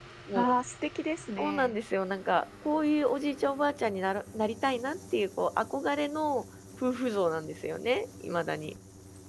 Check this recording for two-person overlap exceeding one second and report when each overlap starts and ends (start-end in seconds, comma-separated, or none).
none